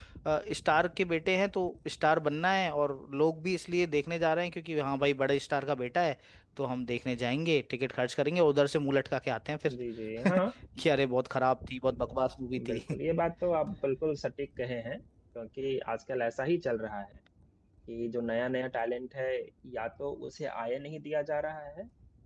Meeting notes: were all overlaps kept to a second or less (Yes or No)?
Yes